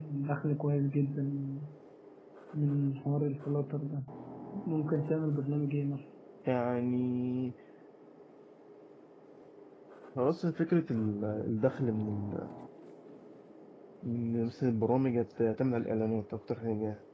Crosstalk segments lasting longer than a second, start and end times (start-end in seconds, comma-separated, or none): none